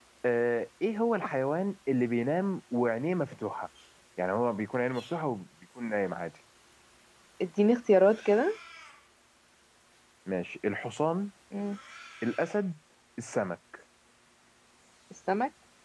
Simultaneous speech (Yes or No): No